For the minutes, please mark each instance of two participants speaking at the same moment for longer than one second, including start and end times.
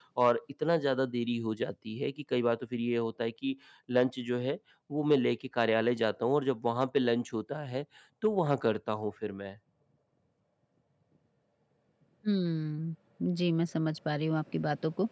none

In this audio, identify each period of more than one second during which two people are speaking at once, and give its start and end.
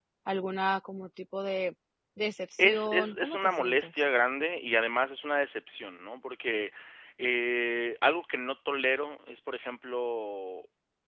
2.6-3.9

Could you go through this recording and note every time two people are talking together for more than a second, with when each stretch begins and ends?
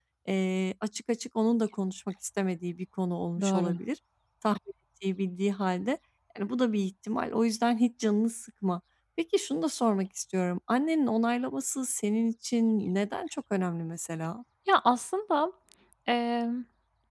none

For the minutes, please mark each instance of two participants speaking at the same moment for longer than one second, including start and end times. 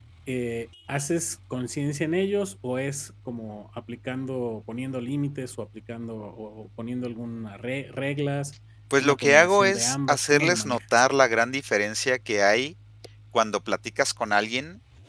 9.0-10.8

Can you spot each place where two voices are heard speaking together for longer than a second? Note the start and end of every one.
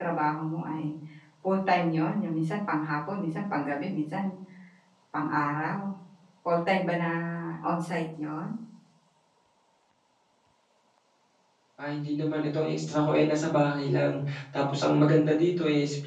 none

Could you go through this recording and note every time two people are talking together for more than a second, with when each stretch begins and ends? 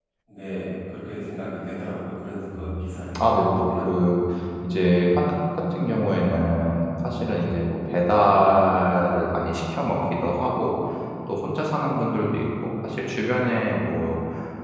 2.5-3.9

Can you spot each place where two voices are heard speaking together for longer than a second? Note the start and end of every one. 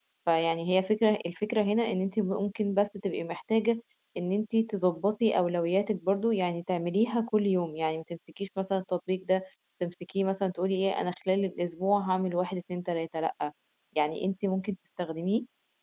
none

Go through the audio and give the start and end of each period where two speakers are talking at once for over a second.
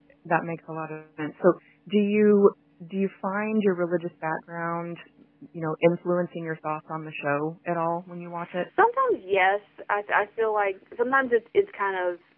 none

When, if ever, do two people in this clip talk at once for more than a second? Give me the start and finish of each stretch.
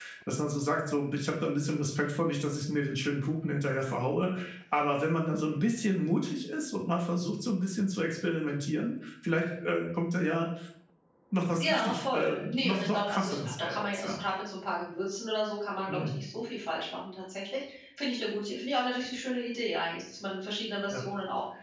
11.6-14.2

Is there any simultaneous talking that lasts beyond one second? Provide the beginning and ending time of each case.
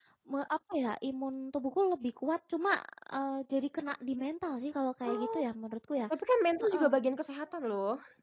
none

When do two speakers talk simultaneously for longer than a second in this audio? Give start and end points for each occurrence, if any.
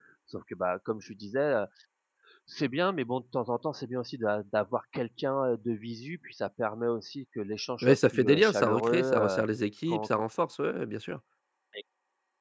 7.8-9.4

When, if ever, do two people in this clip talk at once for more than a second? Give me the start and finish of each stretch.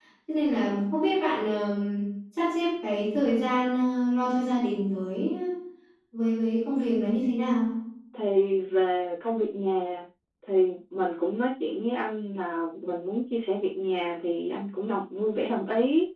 none

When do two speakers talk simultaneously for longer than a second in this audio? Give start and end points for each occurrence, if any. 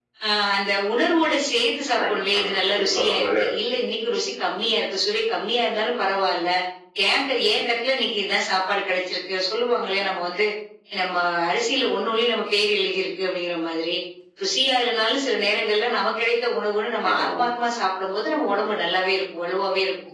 2.0-3.6

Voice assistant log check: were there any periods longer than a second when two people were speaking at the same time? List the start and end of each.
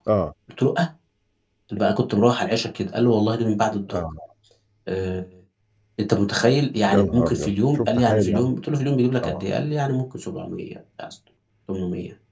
6.9-8.5

